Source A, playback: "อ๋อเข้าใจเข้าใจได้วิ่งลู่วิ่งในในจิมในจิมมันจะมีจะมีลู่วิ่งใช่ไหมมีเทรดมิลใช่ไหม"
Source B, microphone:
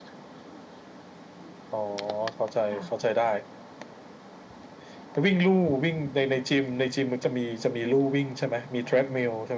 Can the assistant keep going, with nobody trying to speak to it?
No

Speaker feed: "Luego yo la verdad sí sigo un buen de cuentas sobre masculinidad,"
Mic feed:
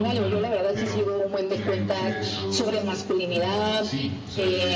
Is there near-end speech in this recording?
Yes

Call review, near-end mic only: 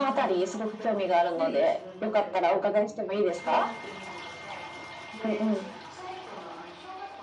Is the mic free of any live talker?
No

